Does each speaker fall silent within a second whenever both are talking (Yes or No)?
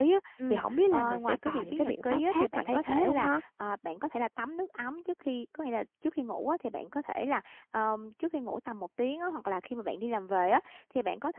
No